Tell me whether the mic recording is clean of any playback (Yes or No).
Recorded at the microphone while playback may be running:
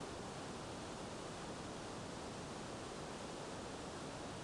Yes